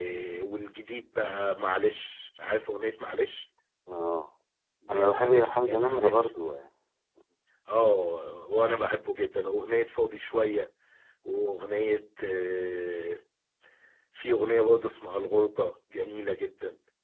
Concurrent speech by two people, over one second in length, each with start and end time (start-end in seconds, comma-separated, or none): 4.9-6.3